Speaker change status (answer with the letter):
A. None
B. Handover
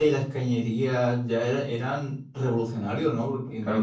B